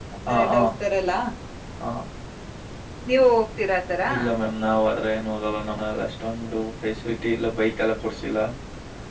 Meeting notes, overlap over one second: none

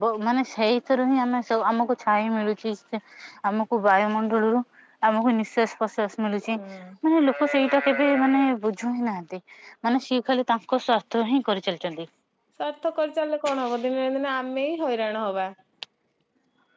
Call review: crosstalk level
none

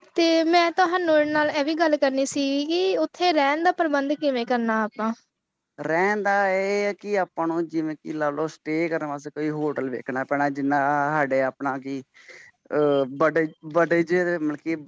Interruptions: none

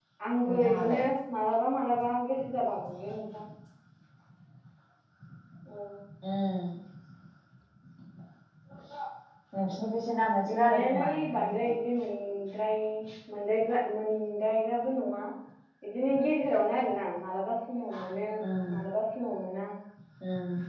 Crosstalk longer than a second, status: present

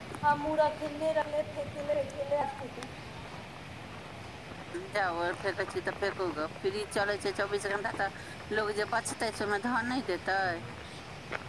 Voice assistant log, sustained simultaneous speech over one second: none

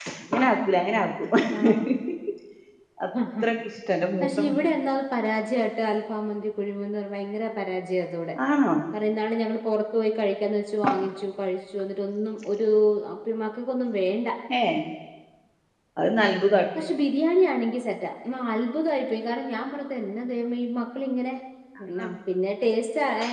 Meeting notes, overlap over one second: none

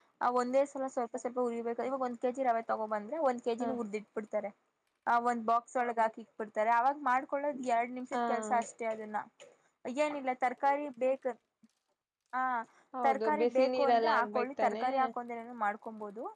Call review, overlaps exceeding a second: present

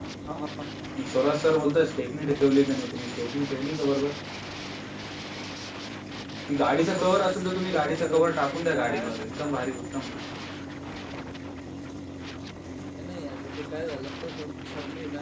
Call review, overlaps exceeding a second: present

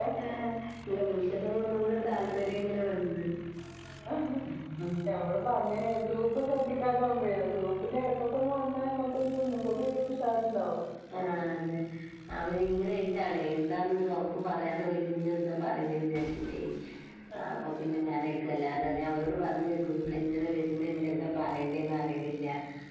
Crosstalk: none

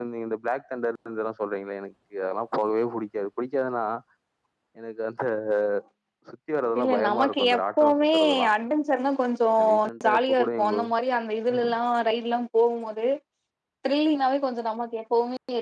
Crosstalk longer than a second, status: present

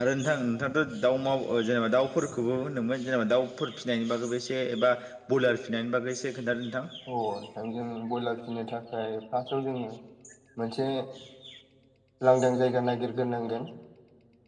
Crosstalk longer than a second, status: none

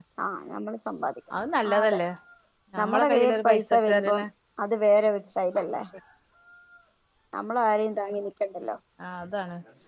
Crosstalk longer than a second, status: present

